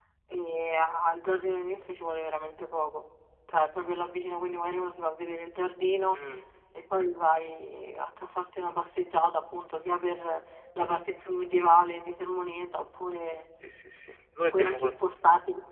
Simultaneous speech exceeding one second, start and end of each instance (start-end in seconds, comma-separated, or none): none